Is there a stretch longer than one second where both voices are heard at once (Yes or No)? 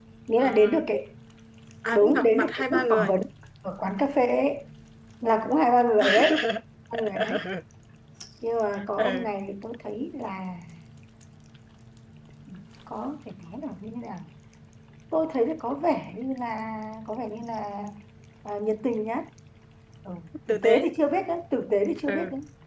Yes